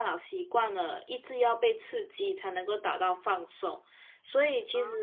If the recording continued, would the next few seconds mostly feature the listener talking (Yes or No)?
No